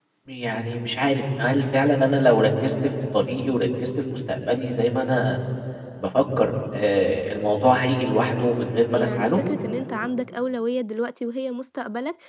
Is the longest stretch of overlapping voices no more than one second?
Yes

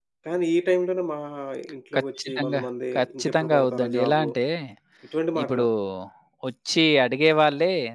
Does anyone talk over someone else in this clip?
Yes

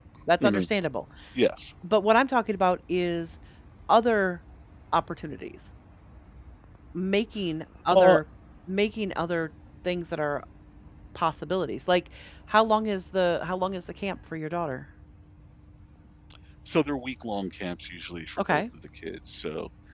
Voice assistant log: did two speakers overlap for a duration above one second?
No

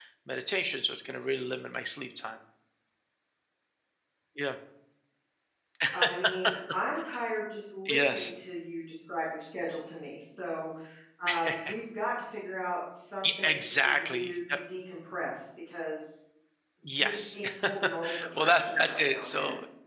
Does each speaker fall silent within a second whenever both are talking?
No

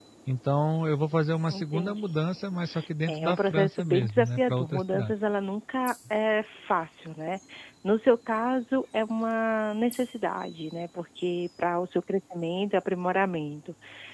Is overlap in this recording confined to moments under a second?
No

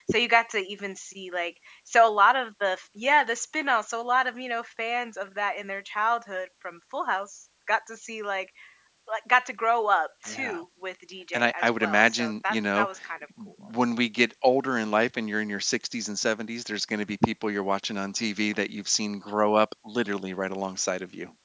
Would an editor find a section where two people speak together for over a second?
Yes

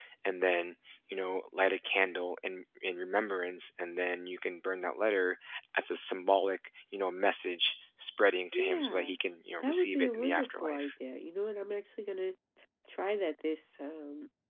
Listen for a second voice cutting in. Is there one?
Yes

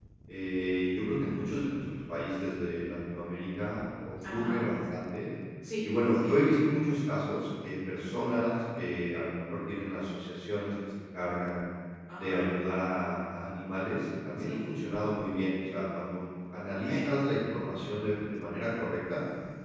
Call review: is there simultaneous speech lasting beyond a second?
No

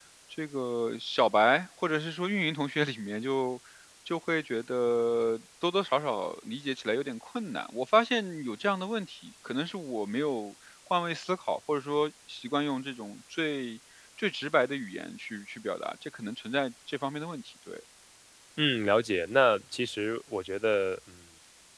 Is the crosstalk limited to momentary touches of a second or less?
Yes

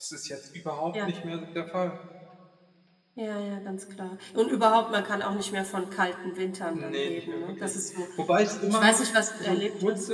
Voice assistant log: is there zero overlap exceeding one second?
No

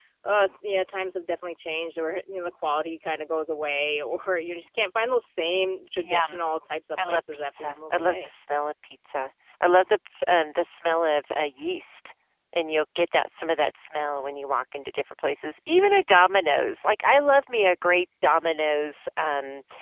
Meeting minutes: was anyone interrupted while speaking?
Yes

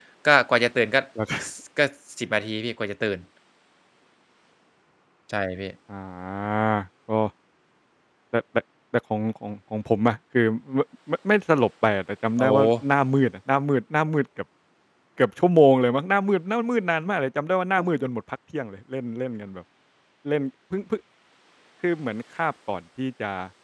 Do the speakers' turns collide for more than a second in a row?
No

